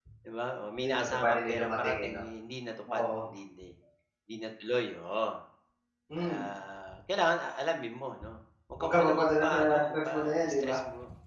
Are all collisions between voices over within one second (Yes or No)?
No